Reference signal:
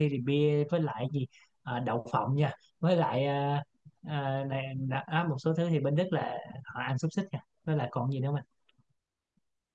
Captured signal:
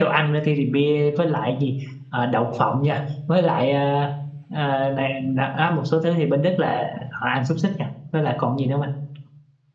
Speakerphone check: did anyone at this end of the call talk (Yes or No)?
No